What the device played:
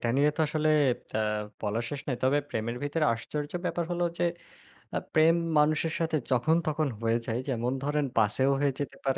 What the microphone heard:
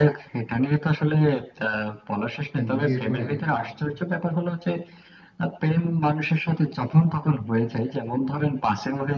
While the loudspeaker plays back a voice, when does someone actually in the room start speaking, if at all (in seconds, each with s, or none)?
2.6 s